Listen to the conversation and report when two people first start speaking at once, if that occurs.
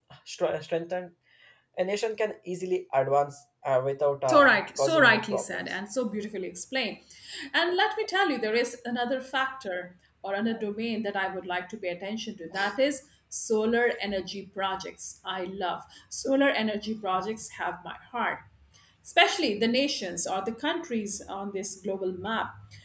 4.3 s

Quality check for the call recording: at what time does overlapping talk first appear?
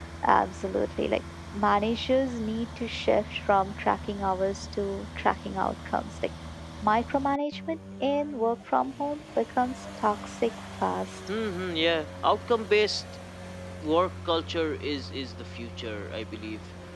none

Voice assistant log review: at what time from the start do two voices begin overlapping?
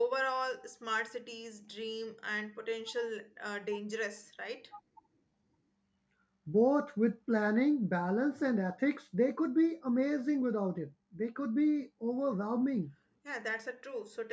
none

